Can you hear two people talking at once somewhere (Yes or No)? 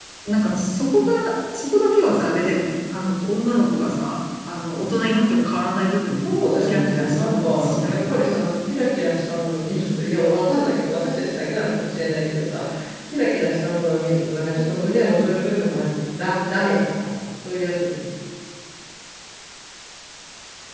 Yes